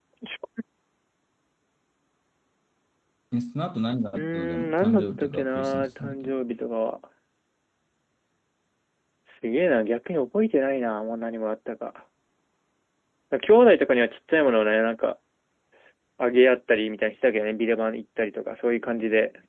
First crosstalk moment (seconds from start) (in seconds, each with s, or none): 4.1 s